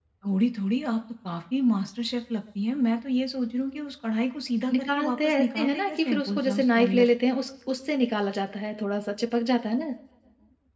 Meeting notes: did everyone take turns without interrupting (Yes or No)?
No